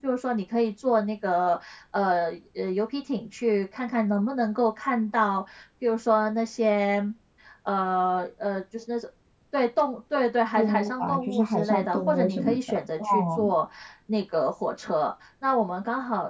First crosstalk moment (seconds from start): 10.6 s

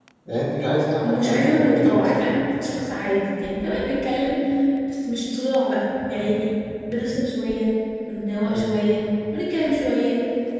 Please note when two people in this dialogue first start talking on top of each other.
1.0 s

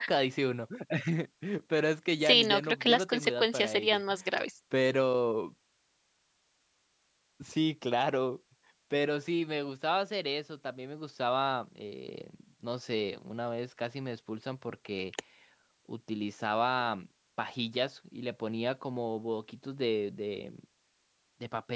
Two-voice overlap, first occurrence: 2.2 s

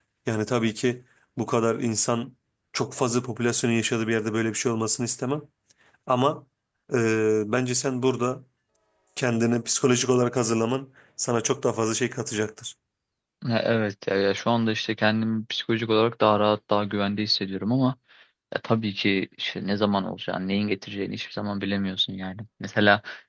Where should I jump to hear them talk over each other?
none

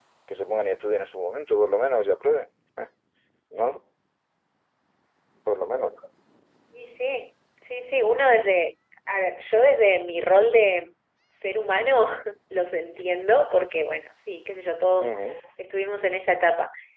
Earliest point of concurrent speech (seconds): none

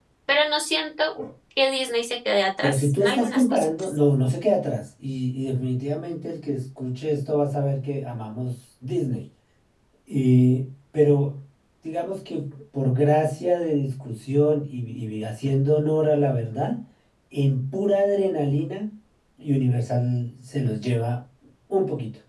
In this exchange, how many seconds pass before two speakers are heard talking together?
2.6 s

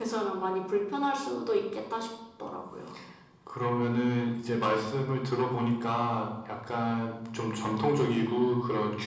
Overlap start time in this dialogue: none

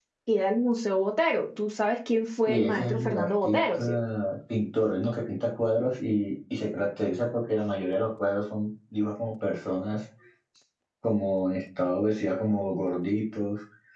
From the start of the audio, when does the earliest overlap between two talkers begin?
2.5 s

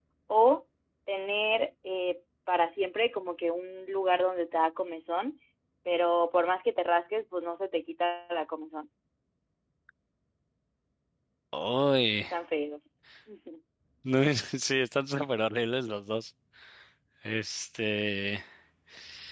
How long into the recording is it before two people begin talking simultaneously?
none

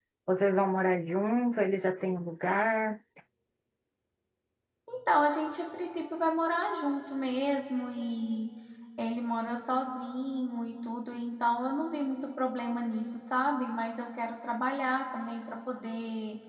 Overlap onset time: none

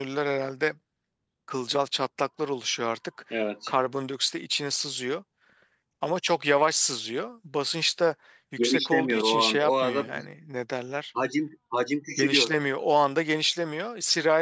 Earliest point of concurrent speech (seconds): 8.6 s

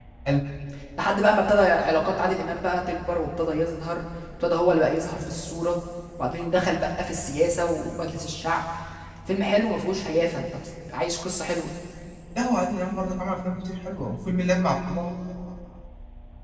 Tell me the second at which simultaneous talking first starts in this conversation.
none

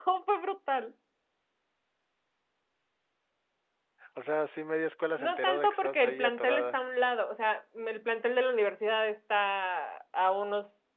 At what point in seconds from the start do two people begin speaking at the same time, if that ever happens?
5.2 s

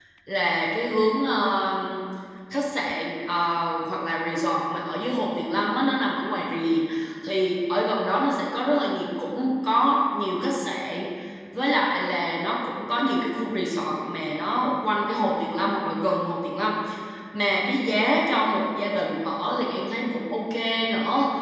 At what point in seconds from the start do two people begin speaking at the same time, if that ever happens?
none

